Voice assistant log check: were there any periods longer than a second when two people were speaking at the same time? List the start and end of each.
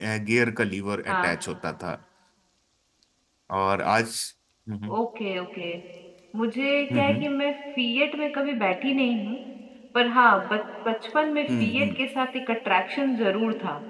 none

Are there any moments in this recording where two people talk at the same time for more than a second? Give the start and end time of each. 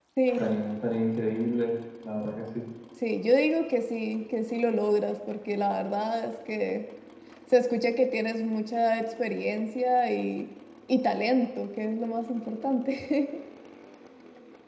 none

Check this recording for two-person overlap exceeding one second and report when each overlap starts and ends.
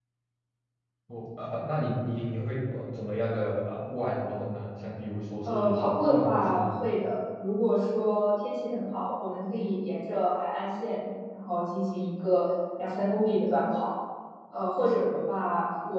5.5-6.7

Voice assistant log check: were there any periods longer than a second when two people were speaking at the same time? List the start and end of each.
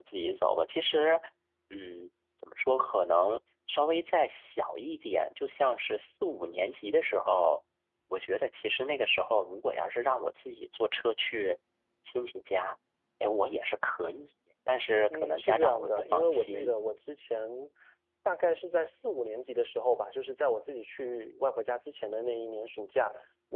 15.1-16.7

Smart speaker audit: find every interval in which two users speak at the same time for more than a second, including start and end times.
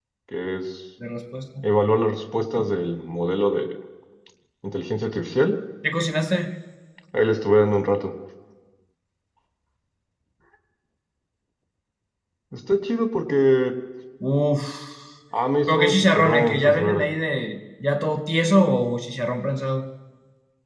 15.7-17.1

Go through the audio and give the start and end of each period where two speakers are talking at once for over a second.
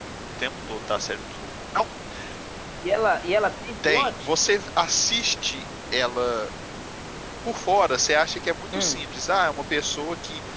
none

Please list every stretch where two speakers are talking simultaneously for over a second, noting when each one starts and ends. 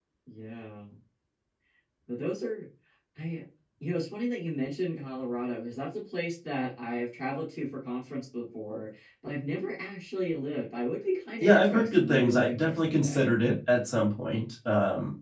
11.4-13.3

